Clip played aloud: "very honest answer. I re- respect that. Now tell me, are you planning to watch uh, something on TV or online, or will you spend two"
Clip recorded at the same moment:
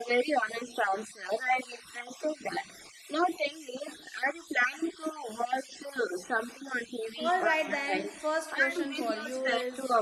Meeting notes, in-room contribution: present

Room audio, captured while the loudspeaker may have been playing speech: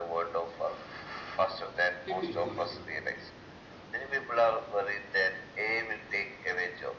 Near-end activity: present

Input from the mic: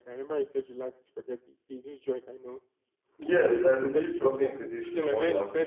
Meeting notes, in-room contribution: present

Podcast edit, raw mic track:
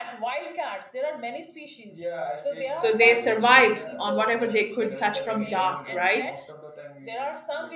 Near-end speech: present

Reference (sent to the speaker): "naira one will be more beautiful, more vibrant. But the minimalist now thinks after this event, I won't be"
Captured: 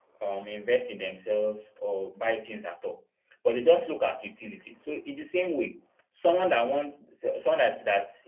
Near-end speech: present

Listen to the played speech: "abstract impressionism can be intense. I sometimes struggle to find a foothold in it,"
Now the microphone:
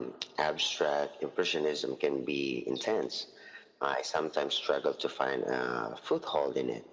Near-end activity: none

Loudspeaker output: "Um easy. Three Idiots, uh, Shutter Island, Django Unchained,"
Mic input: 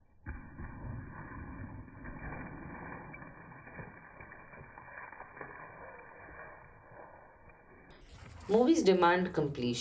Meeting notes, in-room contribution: present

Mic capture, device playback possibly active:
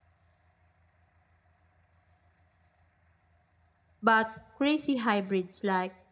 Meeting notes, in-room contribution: present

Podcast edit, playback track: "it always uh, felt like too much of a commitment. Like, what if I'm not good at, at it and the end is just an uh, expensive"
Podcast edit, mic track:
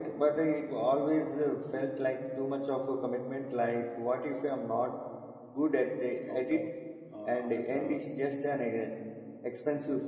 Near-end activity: present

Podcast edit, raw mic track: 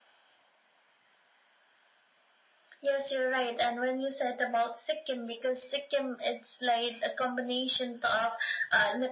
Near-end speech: none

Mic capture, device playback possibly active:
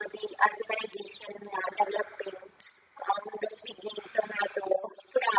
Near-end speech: none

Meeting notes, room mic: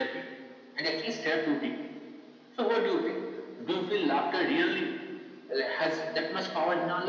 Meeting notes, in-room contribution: none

